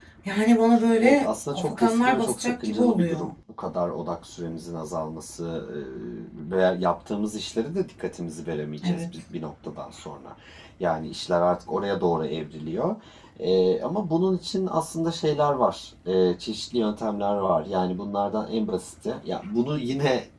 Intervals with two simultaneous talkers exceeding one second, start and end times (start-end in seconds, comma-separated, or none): 1.0-3.3